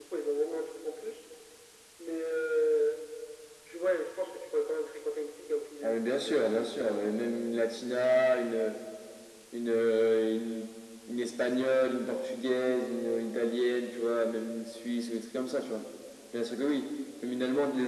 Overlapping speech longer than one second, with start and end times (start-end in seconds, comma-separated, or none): 5.8-7.2